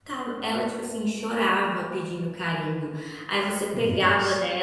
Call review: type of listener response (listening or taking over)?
listening